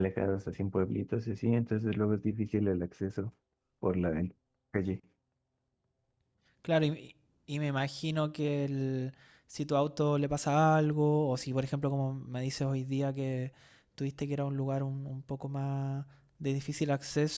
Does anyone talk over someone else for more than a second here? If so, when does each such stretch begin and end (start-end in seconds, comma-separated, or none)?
none